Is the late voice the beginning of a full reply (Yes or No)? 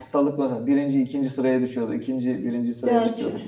No